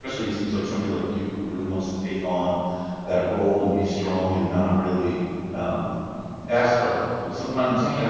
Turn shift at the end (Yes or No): No